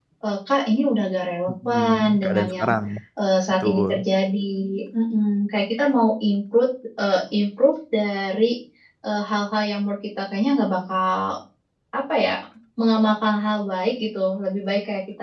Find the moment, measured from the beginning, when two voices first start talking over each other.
1.5 s

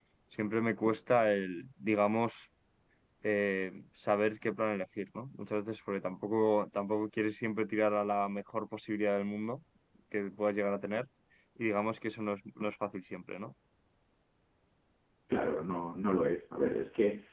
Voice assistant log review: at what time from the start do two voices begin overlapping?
none

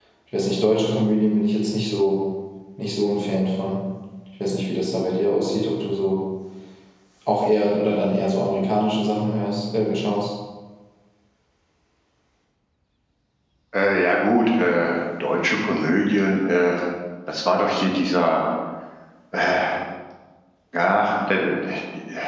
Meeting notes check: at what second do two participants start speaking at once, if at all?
none

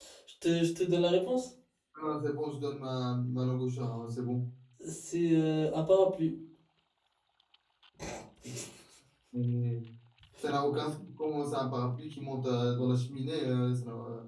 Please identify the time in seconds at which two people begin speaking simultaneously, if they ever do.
none

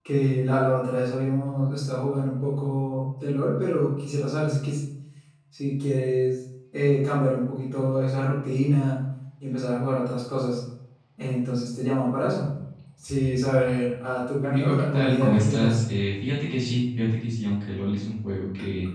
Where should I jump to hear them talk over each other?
14.4 s

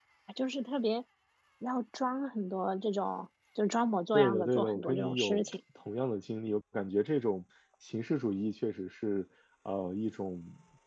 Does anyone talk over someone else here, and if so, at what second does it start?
4.1 s

